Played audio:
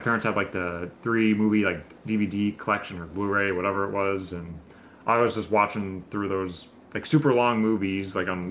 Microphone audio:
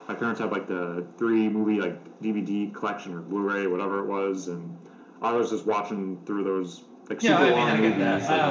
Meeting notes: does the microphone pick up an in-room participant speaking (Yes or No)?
Yes